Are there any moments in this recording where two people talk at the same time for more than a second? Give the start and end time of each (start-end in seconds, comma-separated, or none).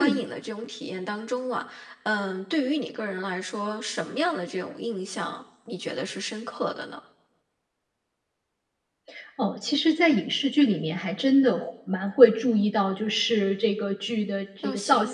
none